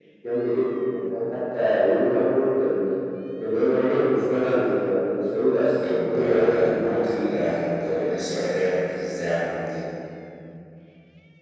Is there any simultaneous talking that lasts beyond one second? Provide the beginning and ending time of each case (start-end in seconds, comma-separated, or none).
5.8-7.4